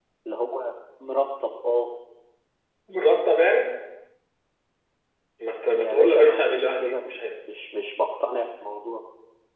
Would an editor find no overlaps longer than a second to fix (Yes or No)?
No